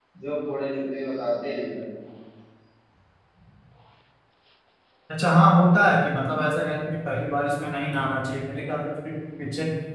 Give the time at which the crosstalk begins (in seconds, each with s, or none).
none